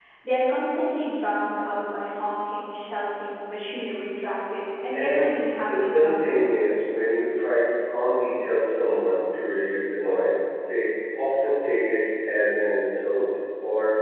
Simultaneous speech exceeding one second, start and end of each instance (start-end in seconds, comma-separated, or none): 4.9-6.5